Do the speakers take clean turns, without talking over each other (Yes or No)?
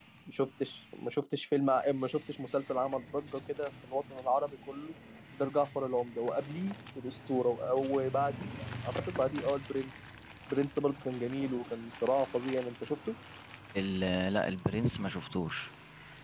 Yes